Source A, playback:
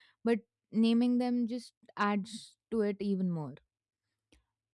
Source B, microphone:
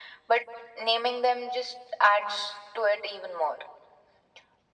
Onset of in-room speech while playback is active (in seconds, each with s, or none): none